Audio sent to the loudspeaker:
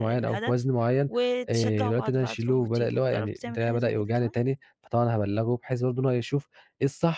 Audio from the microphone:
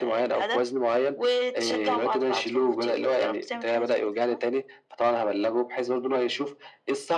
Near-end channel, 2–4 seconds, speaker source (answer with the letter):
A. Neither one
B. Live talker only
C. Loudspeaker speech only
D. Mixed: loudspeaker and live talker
C